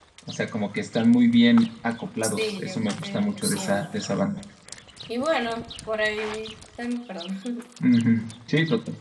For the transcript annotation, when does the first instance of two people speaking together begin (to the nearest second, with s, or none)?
2 s